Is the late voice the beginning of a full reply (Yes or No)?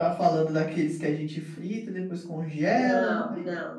Yes